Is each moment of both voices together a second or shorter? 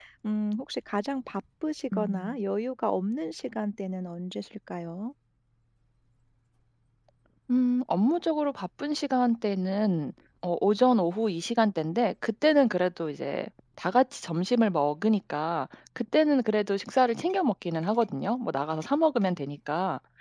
Yes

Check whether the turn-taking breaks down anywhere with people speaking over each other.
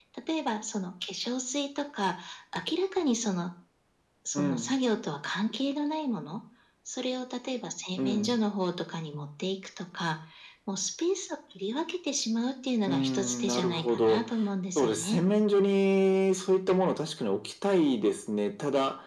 Yes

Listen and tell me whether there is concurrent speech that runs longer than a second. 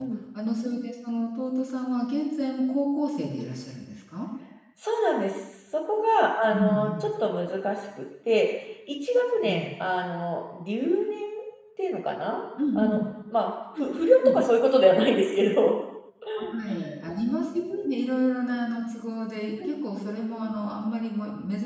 No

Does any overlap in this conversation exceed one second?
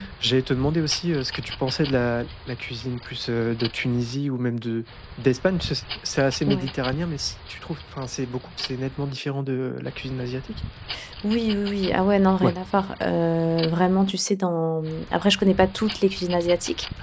No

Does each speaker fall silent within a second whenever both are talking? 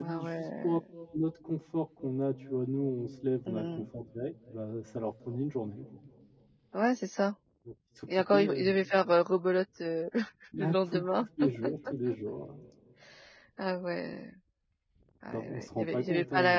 No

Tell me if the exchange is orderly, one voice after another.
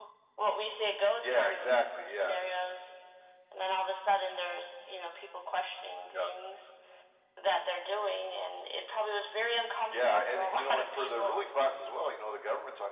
No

